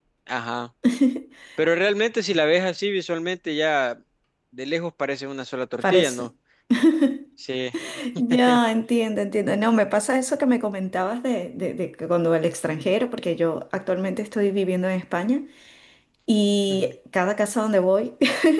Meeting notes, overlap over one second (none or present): none